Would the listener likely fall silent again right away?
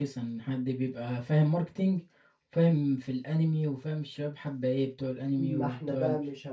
No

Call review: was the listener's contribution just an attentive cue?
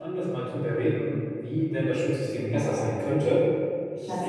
Yes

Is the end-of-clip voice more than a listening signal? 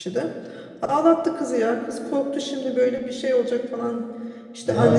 No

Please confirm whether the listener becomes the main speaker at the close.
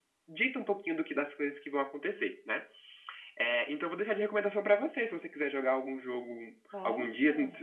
No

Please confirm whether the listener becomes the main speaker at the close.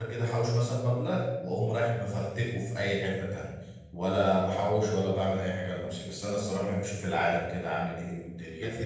Yes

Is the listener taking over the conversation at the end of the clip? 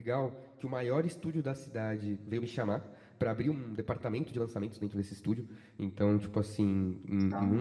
No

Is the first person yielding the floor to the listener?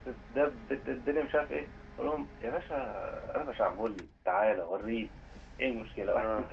No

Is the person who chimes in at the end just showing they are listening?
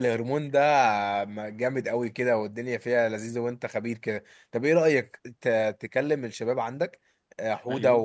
Yes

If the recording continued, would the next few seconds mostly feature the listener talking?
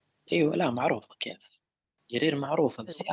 No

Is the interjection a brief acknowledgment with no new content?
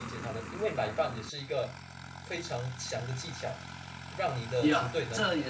No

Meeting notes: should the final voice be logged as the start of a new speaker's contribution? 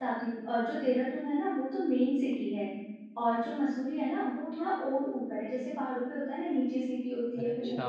No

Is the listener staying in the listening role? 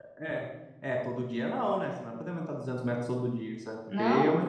Yes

